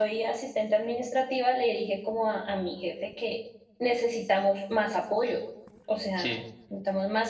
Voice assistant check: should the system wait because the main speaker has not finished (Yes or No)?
Yes